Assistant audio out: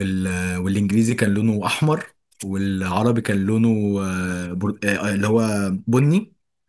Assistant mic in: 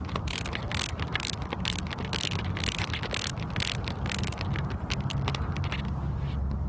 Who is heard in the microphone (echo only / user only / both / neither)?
neither